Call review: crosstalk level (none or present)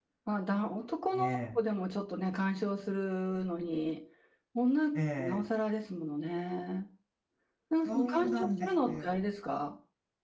present